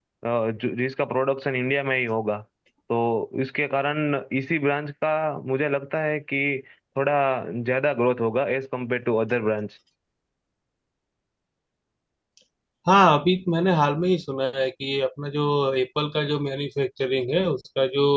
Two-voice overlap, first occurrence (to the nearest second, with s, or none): none